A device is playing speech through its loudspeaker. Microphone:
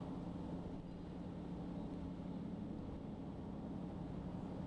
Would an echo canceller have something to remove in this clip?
No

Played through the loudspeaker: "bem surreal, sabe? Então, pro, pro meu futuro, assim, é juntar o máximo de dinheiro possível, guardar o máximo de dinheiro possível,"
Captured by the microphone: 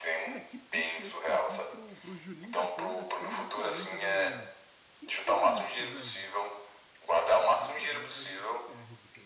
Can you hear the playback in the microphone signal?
Yes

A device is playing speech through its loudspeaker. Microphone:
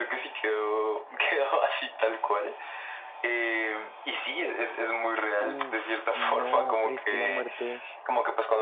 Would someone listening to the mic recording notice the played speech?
Yes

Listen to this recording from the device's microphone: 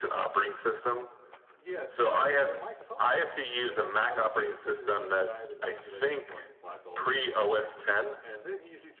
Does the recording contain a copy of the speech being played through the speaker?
Yes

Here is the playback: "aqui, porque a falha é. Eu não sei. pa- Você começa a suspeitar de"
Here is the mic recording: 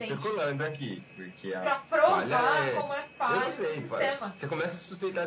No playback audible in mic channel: No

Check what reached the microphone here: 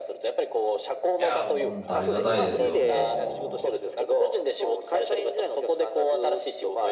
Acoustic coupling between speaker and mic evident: Yes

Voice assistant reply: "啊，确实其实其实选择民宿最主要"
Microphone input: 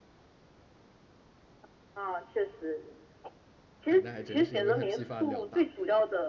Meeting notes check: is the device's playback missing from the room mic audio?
No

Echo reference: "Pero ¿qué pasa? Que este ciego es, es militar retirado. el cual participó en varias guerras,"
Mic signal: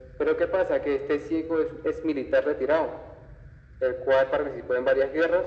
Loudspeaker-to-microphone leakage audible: Yes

